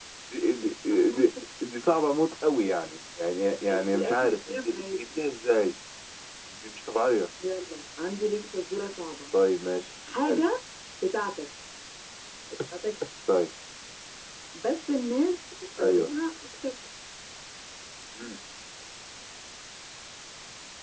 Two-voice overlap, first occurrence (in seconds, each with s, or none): 3.9 s